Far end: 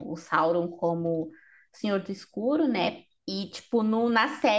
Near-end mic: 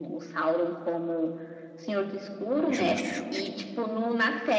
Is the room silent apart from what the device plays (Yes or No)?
No